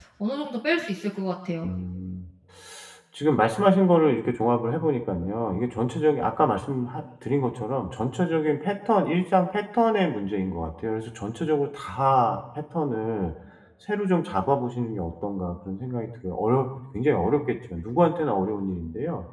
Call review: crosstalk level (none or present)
none